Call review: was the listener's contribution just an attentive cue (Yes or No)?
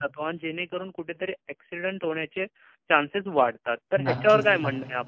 Yes